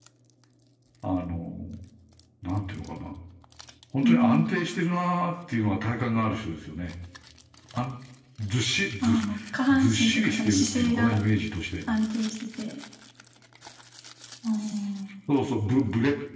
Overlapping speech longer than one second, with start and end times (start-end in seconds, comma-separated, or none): 9.7-11.2